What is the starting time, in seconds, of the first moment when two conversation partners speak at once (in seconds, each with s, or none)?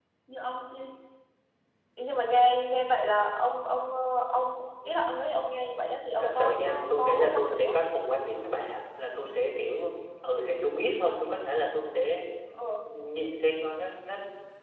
6.2 s